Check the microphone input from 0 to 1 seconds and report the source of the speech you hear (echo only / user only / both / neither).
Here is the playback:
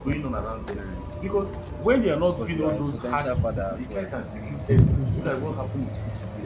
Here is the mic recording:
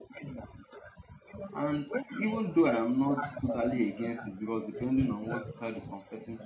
echo only